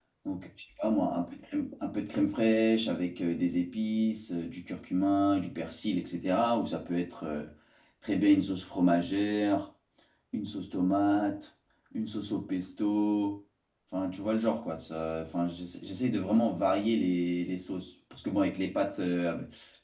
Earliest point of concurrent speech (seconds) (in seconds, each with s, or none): none